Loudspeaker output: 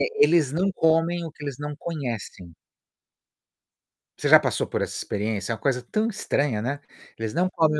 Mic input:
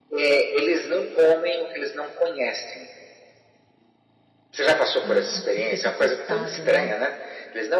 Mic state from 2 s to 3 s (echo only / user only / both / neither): echo only